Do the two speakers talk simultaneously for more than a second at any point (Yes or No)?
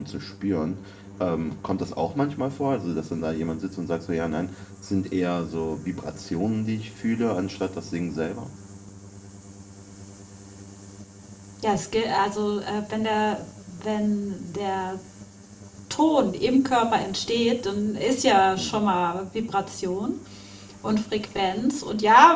No